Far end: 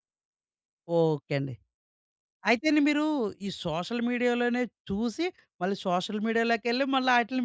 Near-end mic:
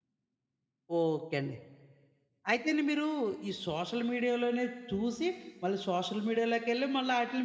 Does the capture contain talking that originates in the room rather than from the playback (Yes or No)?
No